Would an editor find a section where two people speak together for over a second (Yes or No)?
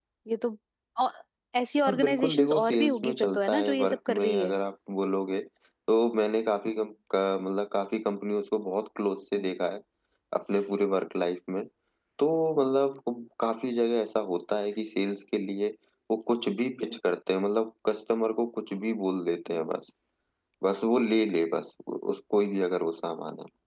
Yes